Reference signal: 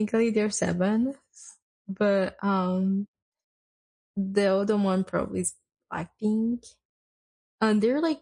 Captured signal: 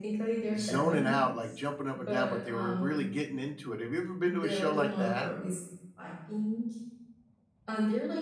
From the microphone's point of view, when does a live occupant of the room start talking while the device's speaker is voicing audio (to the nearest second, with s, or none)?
1 s